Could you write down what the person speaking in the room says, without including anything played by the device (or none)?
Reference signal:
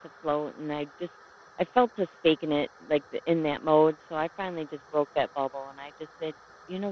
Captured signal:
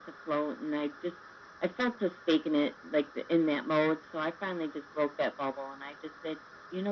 none